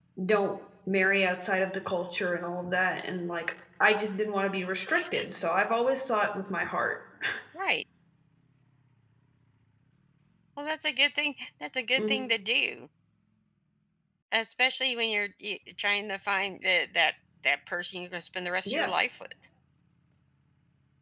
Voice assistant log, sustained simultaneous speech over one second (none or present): none